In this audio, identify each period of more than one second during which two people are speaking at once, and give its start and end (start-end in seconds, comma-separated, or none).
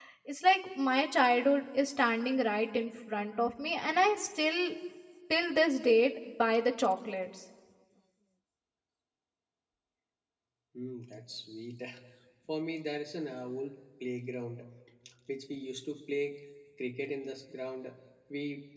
none